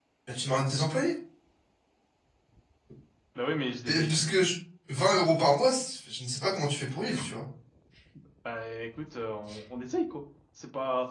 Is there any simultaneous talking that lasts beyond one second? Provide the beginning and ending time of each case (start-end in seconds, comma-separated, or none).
none